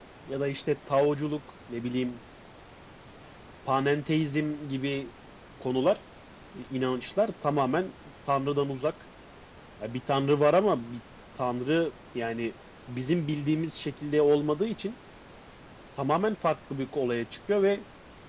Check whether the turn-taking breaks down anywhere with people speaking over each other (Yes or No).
No